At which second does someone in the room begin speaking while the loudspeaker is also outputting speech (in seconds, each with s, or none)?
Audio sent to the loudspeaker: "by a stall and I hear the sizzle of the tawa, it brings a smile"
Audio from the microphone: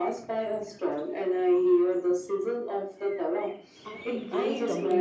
3.9 s